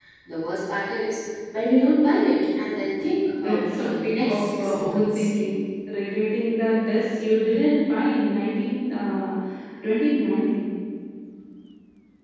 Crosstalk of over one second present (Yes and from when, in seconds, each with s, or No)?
Yes, from 3.4 s